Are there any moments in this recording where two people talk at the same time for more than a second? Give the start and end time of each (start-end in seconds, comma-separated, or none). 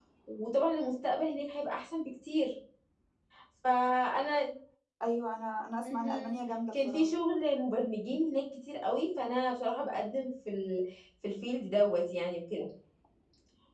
none